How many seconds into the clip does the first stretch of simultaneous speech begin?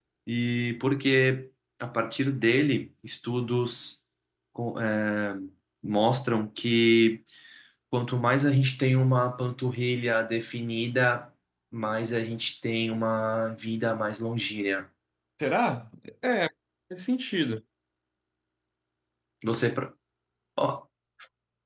none

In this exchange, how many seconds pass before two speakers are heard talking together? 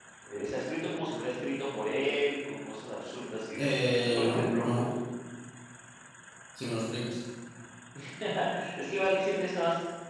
3.6 s

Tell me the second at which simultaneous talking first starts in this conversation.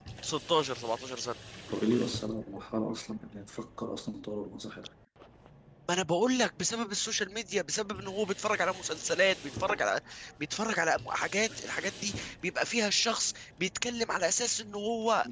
none

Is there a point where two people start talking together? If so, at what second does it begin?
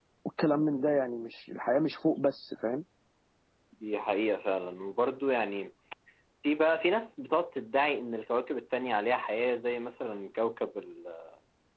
none

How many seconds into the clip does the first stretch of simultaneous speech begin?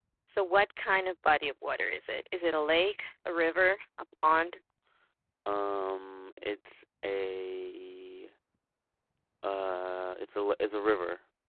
none

